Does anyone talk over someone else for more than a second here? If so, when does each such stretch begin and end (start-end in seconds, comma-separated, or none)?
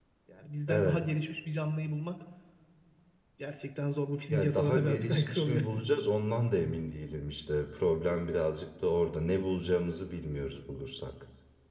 4.3-5.6